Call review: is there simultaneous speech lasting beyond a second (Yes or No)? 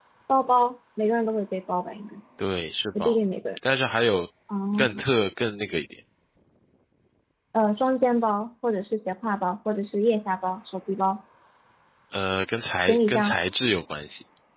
No